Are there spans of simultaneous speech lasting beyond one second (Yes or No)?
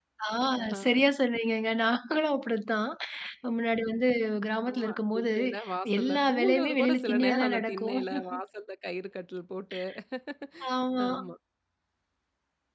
Yes